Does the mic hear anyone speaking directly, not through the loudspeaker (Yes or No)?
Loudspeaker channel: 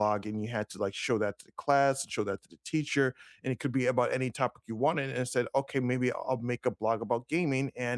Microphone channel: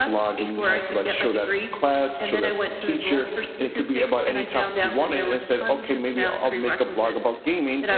Yes